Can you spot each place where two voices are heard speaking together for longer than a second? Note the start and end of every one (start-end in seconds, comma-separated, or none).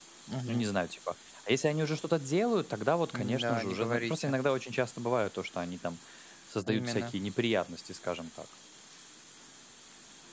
3.1-4.3